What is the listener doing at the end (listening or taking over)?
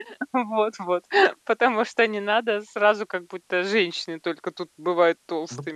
taking over